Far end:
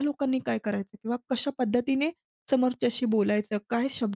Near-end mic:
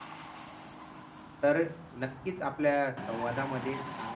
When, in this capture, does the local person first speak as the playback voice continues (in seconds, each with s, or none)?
1.4 s